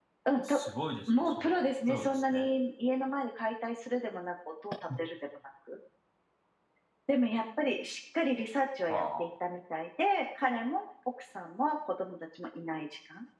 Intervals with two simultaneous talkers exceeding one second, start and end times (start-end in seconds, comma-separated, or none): 1.1-2.5